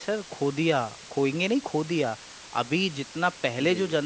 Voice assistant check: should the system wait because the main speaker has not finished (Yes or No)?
Yes